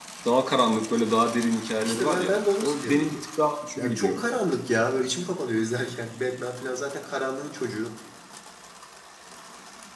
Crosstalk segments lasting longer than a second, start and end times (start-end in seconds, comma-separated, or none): 1.8-3.2